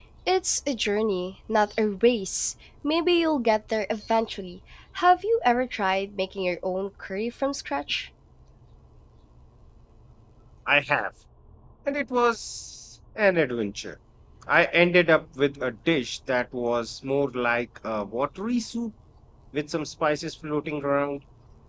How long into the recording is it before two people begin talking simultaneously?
none

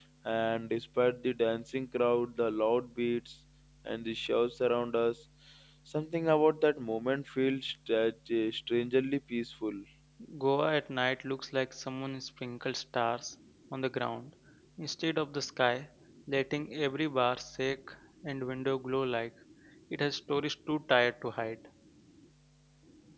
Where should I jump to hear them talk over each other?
none

